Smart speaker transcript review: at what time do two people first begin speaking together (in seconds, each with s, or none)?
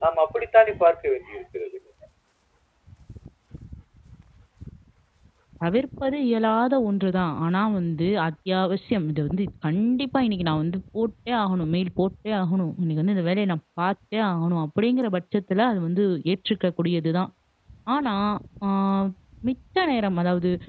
none